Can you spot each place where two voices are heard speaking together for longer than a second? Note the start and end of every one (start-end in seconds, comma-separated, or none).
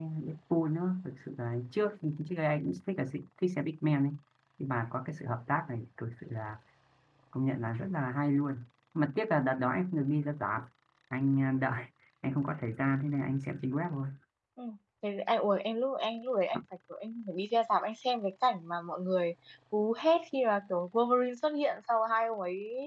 none